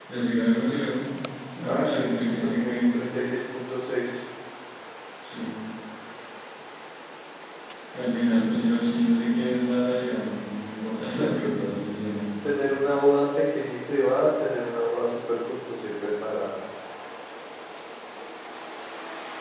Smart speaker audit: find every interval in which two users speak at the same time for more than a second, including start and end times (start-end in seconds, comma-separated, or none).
1.6-3.0